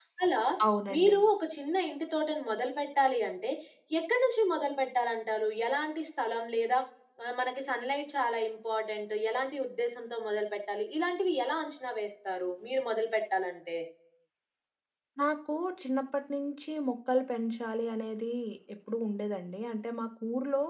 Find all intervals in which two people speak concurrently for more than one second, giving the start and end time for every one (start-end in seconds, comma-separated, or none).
none